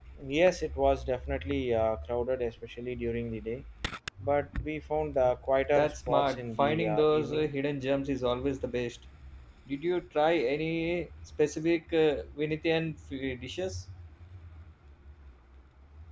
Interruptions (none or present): present